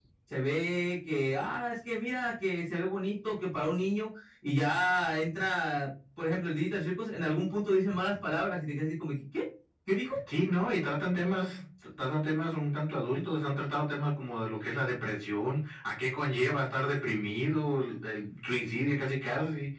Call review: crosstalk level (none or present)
none